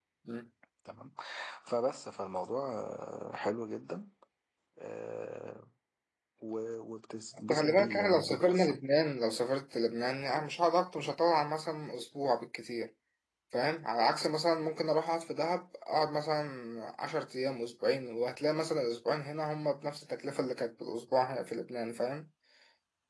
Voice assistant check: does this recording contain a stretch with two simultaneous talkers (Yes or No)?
Yes